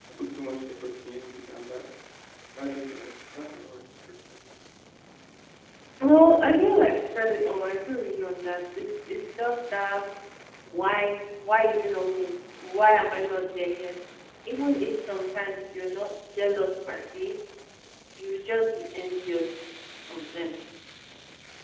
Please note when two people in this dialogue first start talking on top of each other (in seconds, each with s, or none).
none